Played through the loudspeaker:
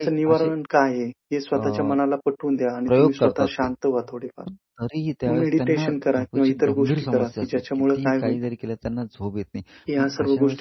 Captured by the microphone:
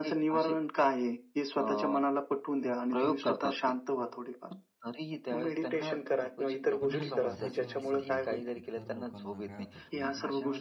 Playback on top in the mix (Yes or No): Yes